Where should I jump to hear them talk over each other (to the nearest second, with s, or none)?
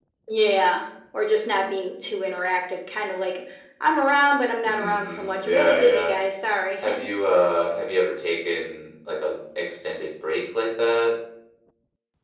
5 s